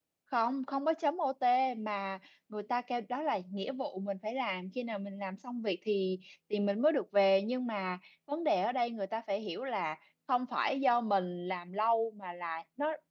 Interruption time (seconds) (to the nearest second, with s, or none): none